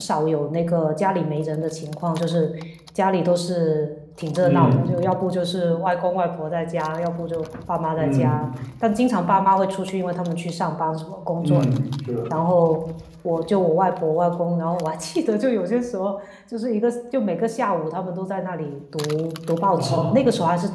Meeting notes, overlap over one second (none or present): none